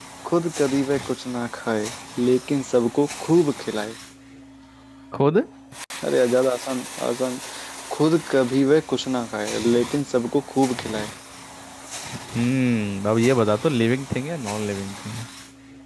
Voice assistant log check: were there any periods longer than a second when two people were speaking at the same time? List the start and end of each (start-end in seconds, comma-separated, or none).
none